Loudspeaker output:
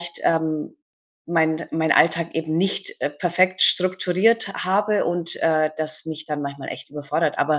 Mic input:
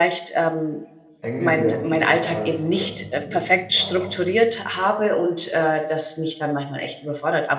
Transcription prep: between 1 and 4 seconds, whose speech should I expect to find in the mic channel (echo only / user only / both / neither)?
both